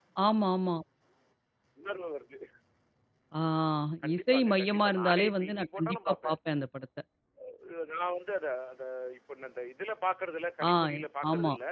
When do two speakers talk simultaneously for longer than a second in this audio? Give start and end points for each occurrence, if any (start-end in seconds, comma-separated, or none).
4.2-6.4